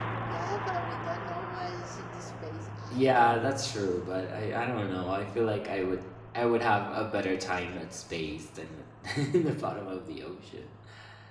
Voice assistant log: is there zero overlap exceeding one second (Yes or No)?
Yes